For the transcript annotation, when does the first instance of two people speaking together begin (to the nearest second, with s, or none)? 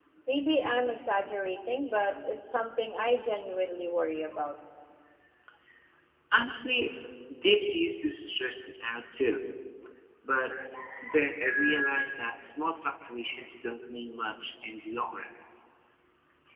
none